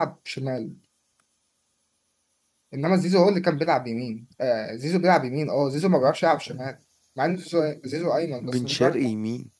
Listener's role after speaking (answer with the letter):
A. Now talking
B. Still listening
A